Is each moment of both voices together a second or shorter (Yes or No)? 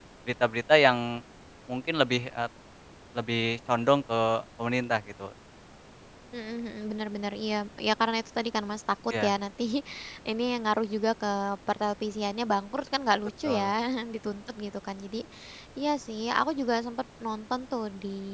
Yes